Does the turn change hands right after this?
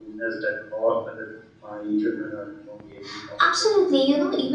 Yes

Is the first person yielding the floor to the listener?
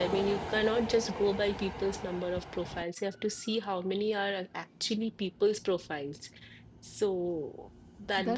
Yes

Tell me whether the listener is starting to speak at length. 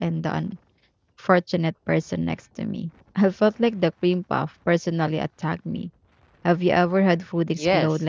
Yes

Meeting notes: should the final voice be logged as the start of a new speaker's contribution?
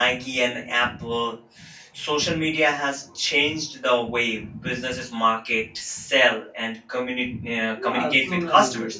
Yes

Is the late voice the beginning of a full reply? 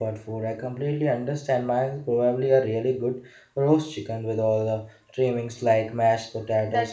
Yes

